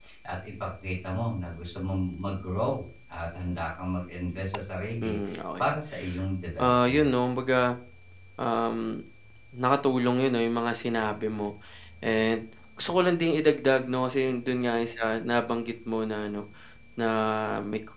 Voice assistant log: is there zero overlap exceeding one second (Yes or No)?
Yes